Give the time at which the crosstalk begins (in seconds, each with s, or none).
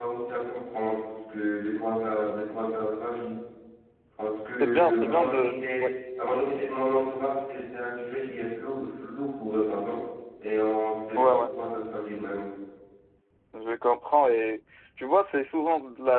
4.6 s